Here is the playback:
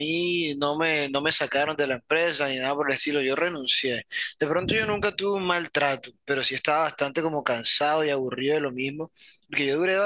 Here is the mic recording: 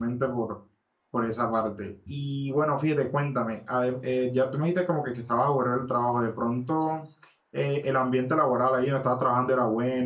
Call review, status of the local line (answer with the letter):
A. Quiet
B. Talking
B